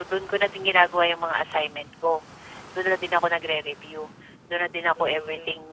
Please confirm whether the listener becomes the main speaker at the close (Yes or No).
Yes